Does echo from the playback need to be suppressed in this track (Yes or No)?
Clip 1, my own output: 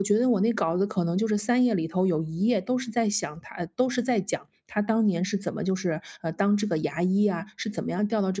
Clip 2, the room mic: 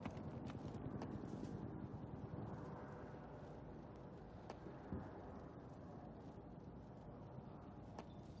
No